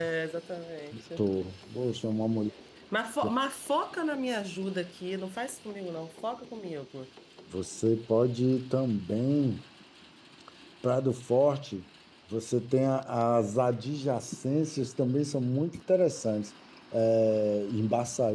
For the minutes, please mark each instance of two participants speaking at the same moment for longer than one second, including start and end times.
none

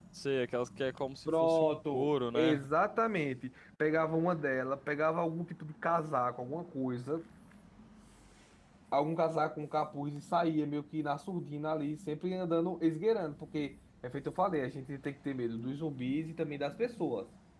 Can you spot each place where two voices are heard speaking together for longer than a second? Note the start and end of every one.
1.3-2.7

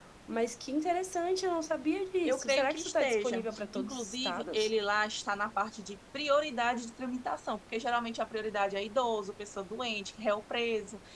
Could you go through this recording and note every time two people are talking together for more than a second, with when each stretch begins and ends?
2.2-4.7

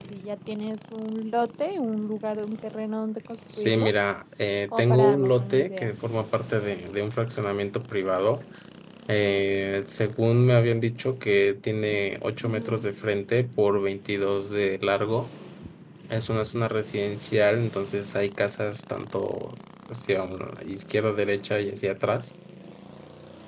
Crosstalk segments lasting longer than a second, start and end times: 4.7-5.9

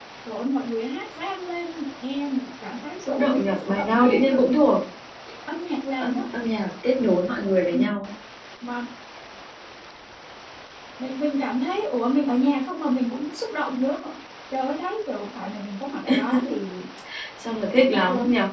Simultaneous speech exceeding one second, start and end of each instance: 3.1-4.4

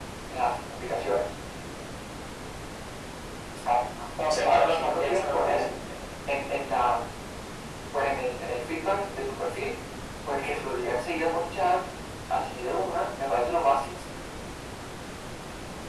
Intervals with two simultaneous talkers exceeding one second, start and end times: 4.4-5.6

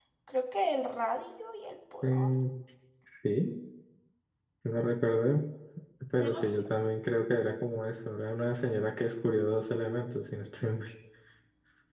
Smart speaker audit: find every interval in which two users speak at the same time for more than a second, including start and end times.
none

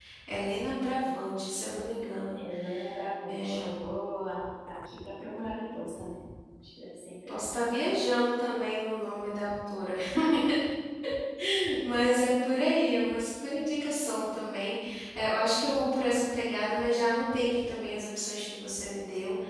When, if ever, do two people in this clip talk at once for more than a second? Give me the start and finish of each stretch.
none

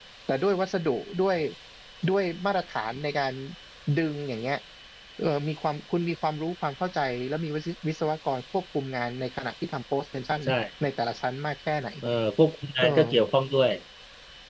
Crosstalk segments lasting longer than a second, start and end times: none

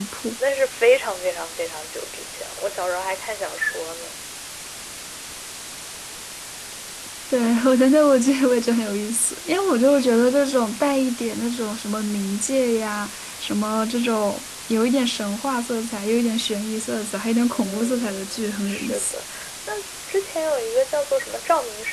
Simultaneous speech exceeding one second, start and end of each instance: 17.5-19.1

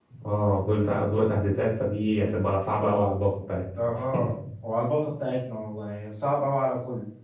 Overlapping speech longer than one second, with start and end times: none

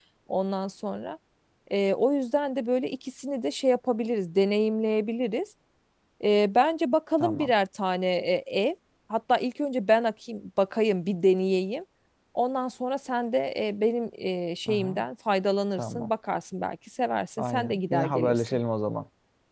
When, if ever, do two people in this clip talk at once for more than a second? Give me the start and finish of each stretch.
17.4-18.6

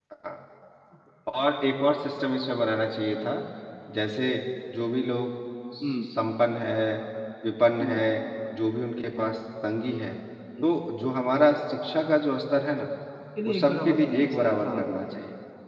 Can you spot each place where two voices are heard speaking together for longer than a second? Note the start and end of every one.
13.4-14.8

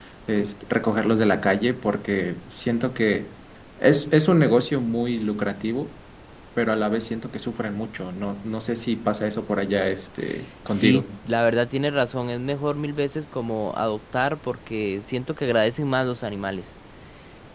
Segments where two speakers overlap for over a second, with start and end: none

